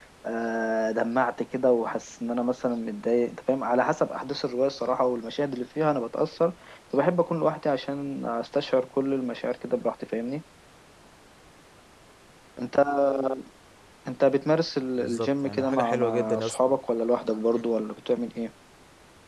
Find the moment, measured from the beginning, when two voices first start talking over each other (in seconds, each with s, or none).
15.0 s